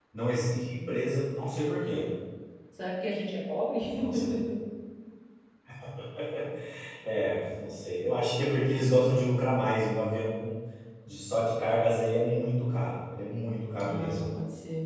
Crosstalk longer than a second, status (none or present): none